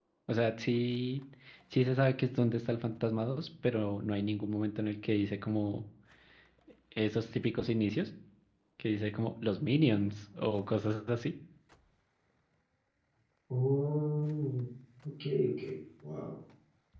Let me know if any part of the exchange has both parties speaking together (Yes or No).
No